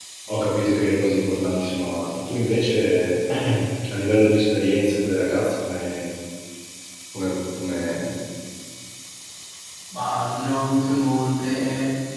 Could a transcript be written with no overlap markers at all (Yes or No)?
Yes